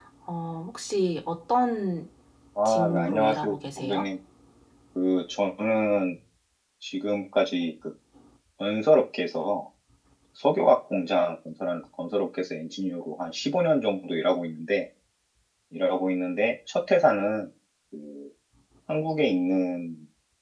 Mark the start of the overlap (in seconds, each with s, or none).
2.6 s